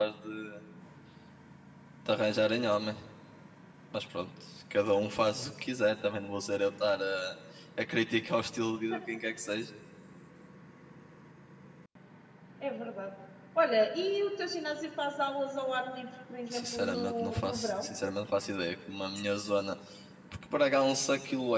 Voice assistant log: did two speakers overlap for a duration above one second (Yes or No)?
Yes